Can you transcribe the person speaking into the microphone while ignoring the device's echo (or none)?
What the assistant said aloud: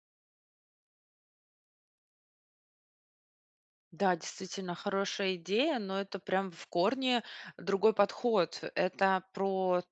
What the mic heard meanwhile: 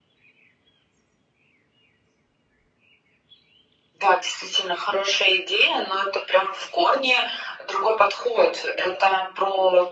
none